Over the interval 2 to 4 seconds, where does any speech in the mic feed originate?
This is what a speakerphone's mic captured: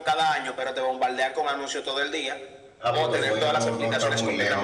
both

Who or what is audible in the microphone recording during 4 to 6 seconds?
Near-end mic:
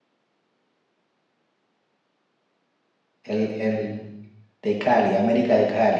user only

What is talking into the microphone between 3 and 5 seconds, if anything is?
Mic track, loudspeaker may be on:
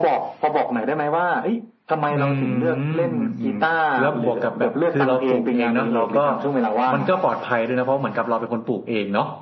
both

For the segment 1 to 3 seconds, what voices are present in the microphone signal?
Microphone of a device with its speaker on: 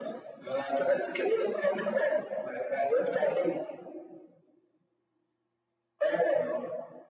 echo only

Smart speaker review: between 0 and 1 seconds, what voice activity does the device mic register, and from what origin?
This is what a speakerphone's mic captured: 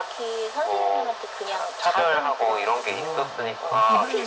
echo only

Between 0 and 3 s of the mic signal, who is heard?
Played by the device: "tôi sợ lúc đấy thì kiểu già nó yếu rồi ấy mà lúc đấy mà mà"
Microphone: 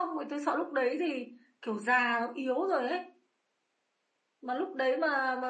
echo only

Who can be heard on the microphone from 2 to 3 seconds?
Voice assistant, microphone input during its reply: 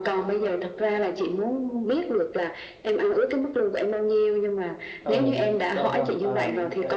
echo only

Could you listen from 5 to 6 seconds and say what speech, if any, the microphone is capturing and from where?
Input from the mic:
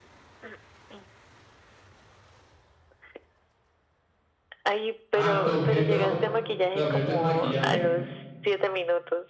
both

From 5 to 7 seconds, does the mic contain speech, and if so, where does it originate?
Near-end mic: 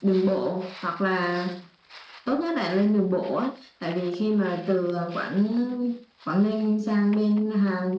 echo only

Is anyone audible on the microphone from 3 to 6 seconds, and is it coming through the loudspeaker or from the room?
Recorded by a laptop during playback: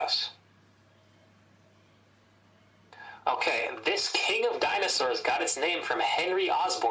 echo only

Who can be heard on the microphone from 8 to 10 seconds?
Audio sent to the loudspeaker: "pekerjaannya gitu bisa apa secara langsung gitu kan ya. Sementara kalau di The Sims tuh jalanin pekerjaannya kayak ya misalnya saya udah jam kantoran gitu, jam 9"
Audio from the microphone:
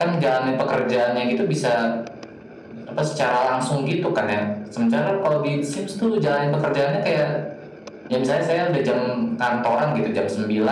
echo only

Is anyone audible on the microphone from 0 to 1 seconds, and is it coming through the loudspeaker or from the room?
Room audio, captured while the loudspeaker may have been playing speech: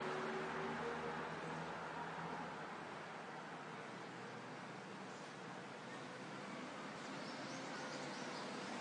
neither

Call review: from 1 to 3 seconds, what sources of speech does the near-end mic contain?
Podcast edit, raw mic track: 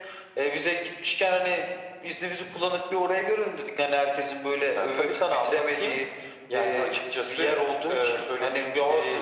echo only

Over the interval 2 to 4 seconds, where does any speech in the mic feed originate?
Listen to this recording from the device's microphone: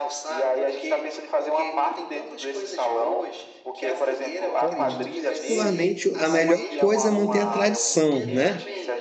echo only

